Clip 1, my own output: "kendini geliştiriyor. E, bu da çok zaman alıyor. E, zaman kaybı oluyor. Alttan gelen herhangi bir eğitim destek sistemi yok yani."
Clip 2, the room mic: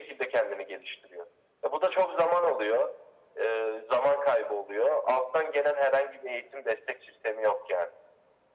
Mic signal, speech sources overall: echo only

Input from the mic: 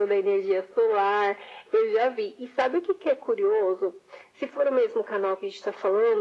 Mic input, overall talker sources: echo only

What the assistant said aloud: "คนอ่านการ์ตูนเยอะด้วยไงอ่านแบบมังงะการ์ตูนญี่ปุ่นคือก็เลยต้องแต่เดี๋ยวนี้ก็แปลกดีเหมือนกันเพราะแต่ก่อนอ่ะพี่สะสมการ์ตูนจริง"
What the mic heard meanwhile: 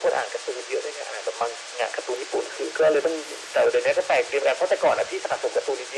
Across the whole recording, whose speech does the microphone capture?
echo only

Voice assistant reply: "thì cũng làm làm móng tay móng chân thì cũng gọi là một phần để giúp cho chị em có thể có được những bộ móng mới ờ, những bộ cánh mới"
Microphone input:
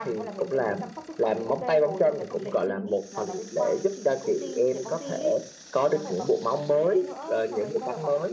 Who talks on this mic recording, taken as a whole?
both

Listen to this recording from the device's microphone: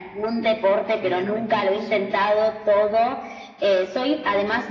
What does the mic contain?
both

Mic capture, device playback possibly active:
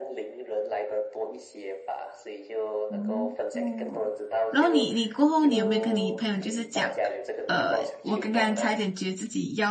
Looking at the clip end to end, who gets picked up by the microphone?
both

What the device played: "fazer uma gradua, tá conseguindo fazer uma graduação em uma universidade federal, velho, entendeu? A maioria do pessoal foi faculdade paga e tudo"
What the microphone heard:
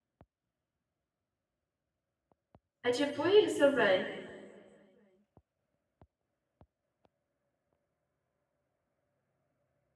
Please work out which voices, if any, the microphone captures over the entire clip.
user only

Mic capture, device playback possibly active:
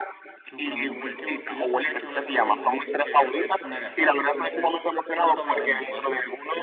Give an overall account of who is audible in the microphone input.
both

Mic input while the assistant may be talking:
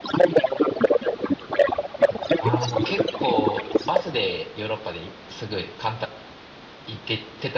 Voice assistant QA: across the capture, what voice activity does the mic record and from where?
both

